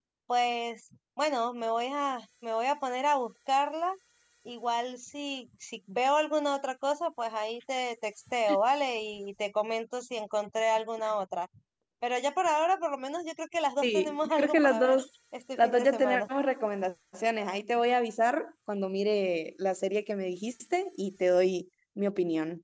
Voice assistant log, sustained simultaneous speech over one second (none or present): present